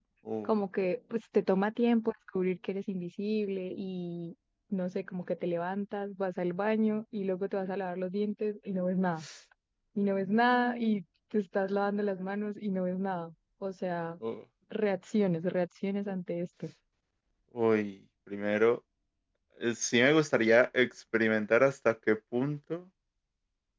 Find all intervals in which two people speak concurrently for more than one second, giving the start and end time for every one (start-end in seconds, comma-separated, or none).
none